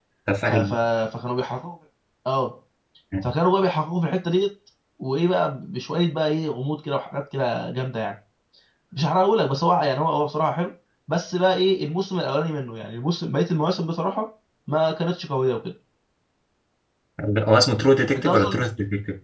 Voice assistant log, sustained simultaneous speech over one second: none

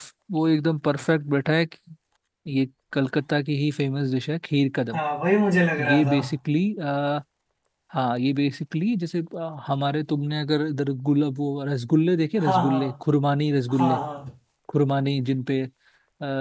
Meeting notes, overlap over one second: none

